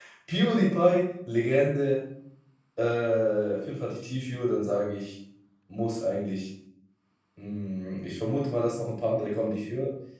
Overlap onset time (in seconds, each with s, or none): none